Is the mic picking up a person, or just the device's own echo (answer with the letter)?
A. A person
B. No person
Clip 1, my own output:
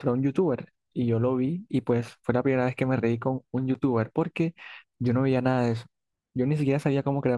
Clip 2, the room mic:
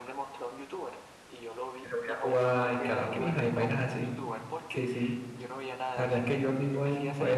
A